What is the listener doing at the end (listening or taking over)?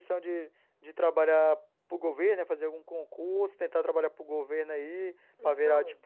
listening